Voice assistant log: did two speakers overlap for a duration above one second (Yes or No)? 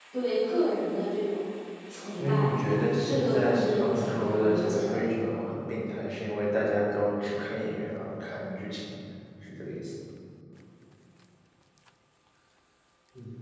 Yes